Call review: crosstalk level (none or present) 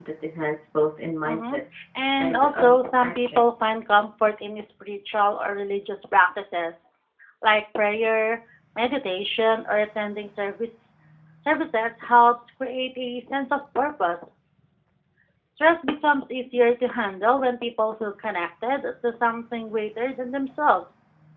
present